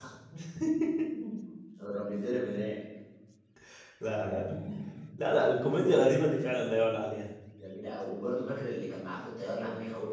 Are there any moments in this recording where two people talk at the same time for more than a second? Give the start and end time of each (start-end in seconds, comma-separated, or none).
none